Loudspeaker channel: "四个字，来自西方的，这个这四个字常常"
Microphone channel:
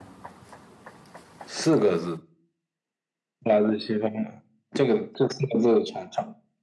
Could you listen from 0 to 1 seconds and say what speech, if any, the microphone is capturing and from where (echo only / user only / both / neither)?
neither